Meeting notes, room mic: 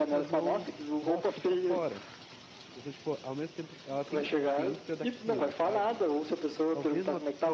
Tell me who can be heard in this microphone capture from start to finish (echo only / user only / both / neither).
both